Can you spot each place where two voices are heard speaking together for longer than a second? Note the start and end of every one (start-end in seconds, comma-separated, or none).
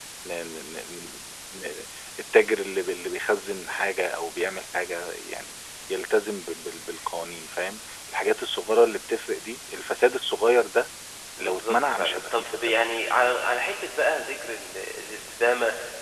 11.4-13.0